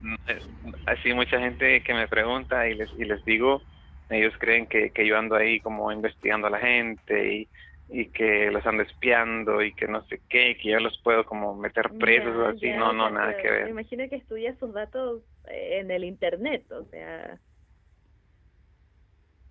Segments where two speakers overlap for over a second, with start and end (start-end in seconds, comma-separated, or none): 12.0-13.7